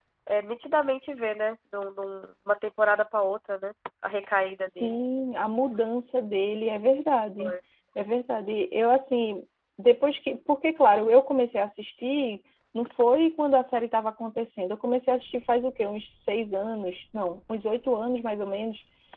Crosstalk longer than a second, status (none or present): none